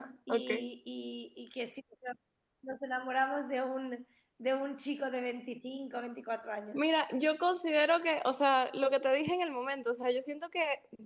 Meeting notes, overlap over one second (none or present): none